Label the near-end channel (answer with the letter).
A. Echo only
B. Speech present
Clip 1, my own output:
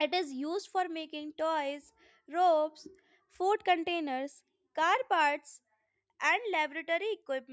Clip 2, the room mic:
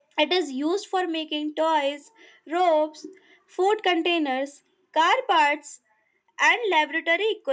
A